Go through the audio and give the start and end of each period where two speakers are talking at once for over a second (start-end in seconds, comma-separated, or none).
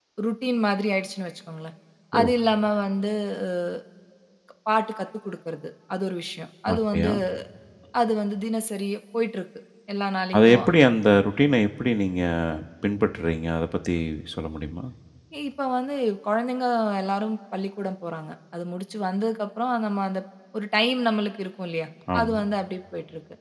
none